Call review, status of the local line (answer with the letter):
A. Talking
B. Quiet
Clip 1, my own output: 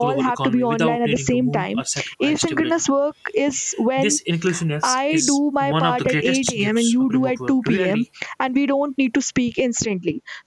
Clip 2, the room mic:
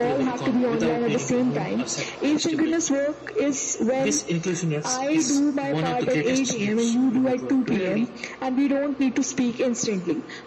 B